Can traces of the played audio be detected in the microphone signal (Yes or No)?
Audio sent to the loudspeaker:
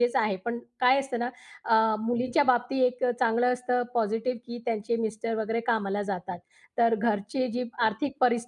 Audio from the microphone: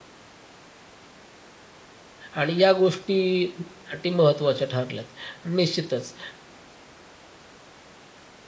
No